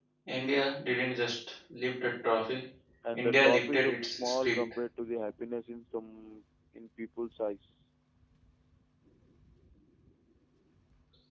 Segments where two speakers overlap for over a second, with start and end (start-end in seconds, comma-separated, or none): 3.1-4.6